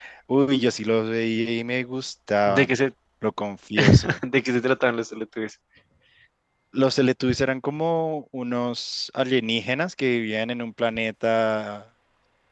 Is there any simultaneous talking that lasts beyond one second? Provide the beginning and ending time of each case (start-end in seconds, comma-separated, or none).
none